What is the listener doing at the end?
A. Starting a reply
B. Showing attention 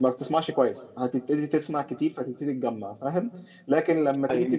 B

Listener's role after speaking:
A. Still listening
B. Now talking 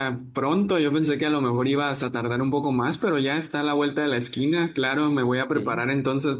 A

